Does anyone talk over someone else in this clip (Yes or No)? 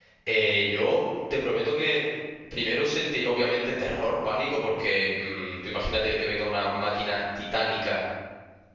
No